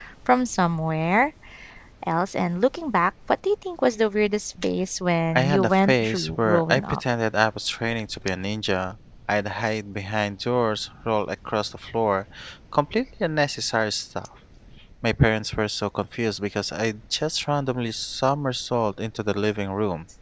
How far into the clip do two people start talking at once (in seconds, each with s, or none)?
5.3 s